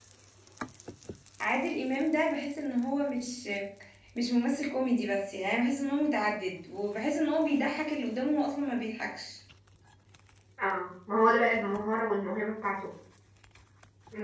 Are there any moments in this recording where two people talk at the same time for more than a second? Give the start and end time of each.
none

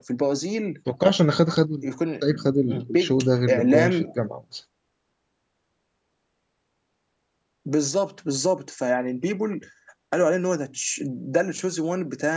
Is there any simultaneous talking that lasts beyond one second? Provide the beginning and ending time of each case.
2.7-4.1

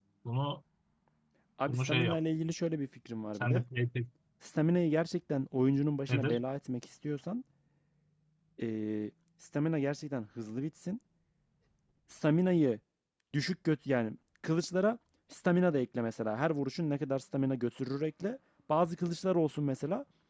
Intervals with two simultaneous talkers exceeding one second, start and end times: none

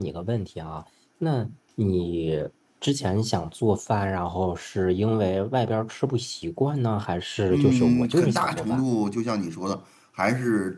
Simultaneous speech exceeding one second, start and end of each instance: 7.5-8.8

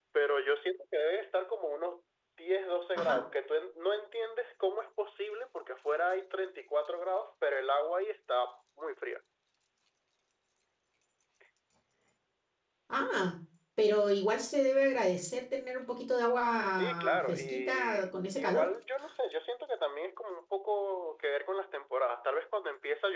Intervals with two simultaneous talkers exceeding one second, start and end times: 16.7-18.7

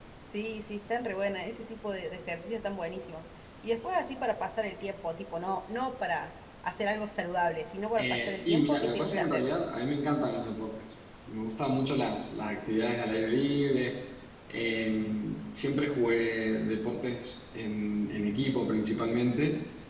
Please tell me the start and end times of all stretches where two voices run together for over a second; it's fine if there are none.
8.0-9.5

